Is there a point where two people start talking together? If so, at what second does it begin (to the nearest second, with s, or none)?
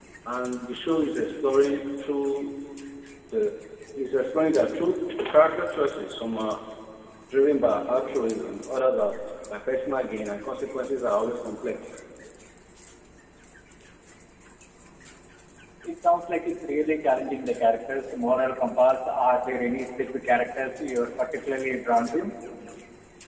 none